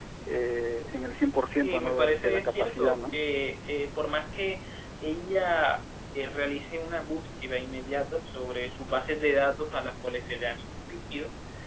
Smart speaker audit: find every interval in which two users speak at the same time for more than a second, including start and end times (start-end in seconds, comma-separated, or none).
1.6-3.1